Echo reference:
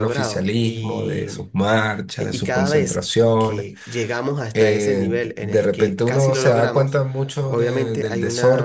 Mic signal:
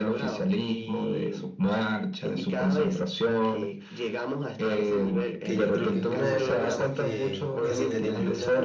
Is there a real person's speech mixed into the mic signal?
Yes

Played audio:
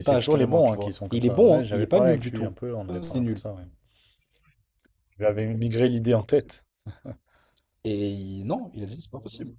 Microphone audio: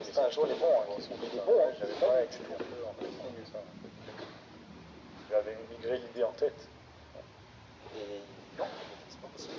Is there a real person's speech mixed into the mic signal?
No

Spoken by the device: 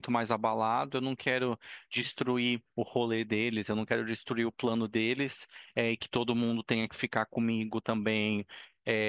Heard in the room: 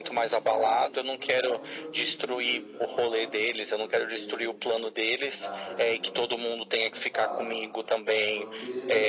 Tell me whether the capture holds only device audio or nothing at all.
No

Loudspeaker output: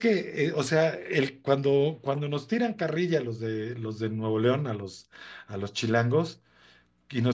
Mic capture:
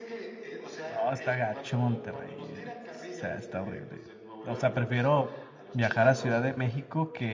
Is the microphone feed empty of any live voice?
No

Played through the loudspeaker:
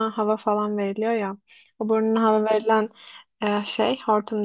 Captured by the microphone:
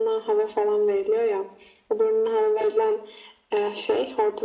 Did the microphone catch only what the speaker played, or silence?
Yes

